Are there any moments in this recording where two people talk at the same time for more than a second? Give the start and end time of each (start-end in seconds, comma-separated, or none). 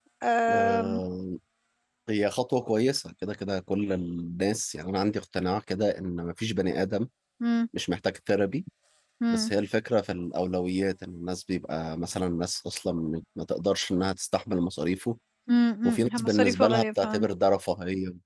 15.8-17.3